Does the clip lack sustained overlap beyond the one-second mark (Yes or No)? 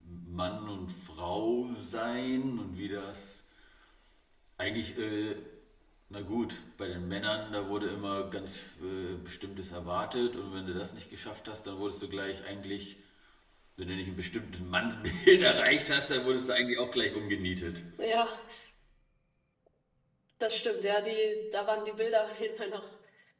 Yes